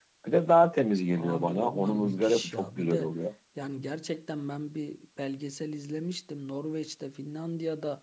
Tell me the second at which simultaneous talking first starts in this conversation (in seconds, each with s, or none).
1.1 s